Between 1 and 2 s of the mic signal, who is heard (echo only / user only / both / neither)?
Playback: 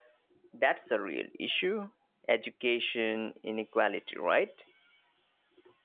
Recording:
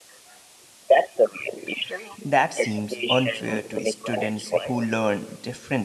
echo only